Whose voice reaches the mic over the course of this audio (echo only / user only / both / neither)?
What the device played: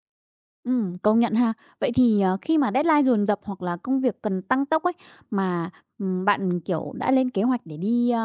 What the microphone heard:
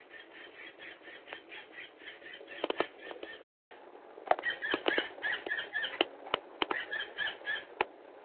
neither